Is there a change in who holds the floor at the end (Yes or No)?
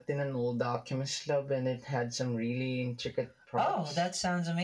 Yes